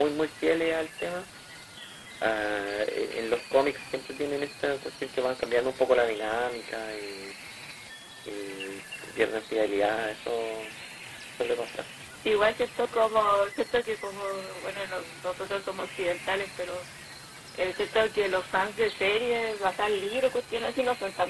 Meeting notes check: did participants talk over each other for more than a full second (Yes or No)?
No